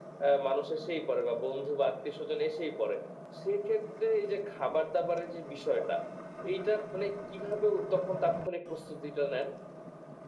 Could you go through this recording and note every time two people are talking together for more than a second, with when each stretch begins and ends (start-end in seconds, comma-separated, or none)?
none